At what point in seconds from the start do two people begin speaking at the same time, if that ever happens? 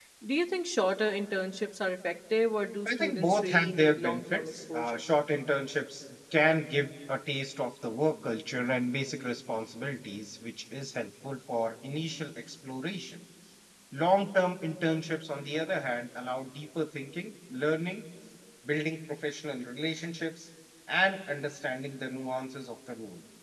3 s

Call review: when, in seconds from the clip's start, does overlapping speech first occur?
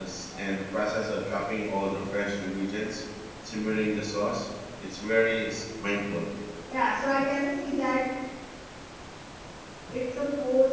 none

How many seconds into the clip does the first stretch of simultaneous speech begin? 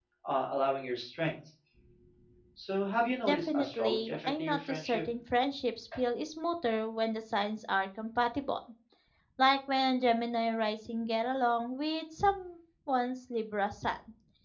3 s

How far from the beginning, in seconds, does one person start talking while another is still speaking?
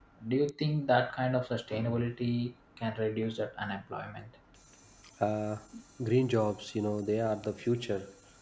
none

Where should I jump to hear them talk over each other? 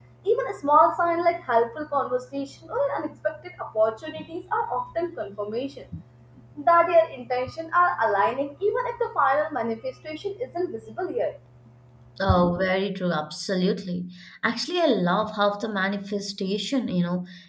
none

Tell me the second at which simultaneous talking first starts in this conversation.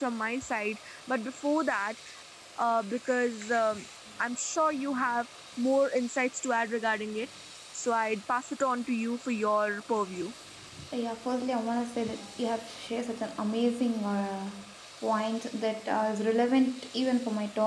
none

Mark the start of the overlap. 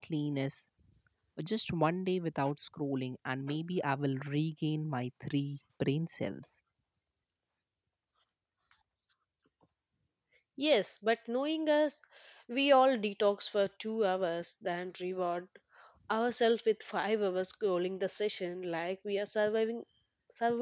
none

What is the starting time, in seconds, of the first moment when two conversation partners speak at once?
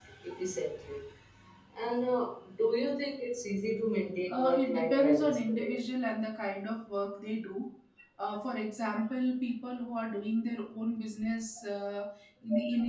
4 s

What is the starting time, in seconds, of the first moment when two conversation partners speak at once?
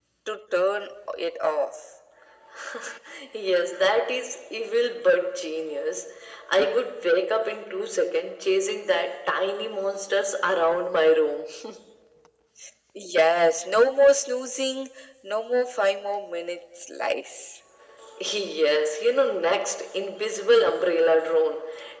none

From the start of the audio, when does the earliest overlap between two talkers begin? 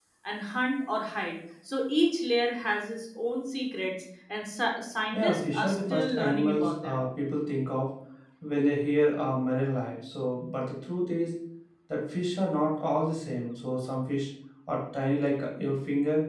5 s

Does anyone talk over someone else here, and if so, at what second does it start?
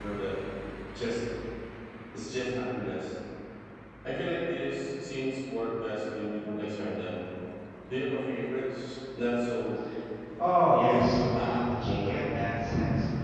11 s

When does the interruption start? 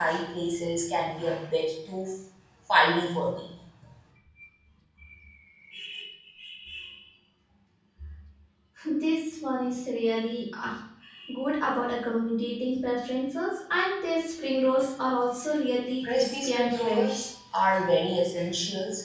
16 s

